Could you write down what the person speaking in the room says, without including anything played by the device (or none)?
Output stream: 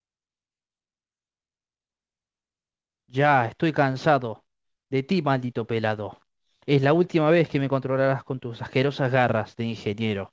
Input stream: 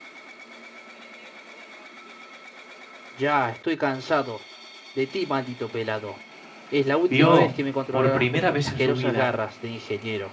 vio por primera vez en su vida